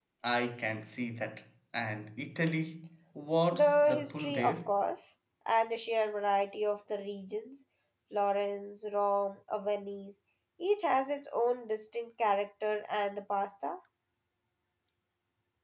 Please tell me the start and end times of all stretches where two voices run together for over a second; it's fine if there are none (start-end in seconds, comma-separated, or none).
3.5-4.7